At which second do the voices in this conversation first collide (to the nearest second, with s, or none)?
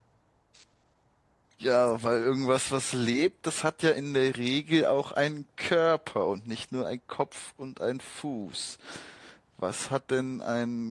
none